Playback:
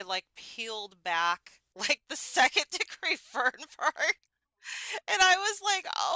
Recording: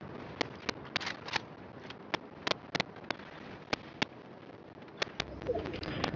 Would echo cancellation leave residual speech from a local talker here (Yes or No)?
No